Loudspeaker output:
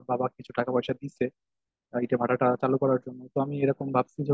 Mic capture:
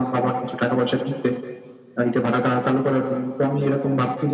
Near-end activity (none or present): none